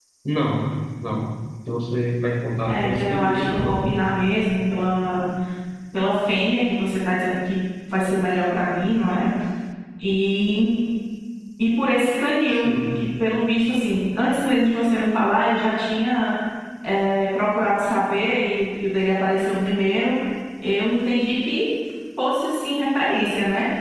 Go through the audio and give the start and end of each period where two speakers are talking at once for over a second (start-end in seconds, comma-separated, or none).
2.7-3.9